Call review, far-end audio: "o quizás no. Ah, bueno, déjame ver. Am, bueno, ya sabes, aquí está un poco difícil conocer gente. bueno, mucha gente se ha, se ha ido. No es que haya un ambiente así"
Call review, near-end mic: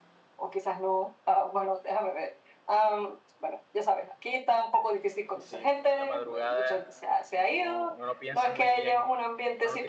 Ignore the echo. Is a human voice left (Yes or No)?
Yes